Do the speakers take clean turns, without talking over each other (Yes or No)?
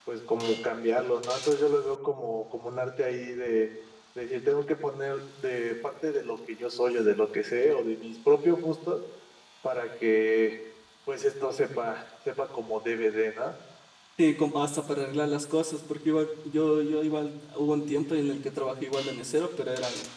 Yes